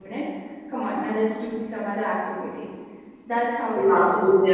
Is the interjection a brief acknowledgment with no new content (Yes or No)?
No